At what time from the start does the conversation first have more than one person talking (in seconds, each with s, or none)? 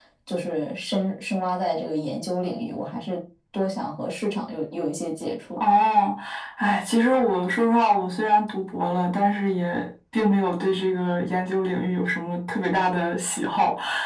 none